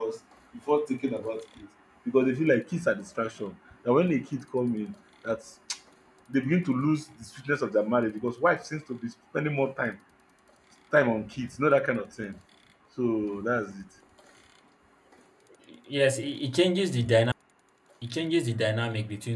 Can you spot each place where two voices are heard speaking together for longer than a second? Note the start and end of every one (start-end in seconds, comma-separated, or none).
none